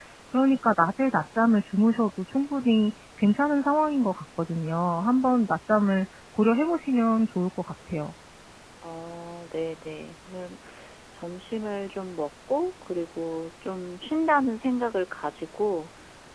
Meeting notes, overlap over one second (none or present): none